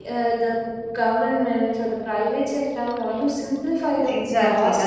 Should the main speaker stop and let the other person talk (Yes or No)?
Yes